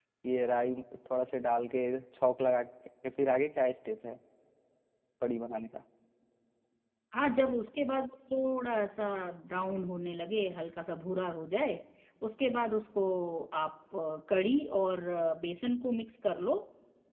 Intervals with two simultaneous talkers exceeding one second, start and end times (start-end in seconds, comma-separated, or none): none